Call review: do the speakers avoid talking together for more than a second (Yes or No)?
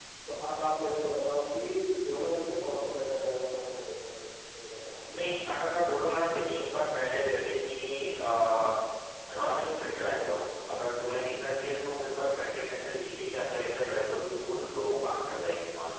Yes